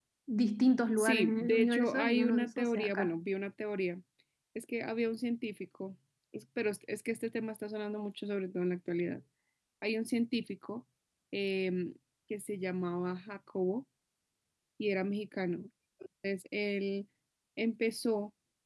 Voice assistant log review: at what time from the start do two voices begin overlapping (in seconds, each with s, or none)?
1.0 s